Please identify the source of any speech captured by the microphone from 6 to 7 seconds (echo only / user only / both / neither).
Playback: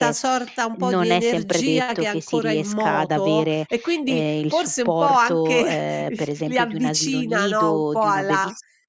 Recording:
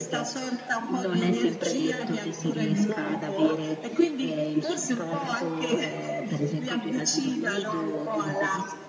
echo only